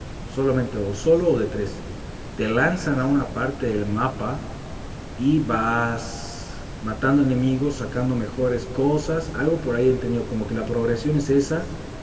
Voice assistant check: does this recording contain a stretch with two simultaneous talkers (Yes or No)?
No